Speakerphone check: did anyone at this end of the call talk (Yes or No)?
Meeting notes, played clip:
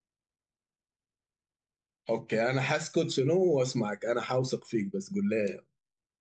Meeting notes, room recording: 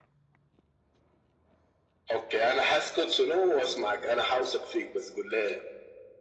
No